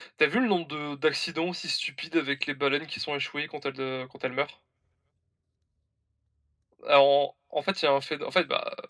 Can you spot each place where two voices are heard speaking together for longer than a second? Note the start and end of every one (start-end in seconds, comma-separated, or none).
none